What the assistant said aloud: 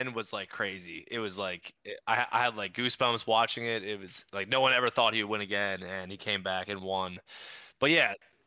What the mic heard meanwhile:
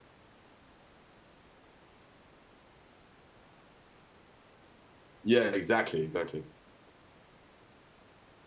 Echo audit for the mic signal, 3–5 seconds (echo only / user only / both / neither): neither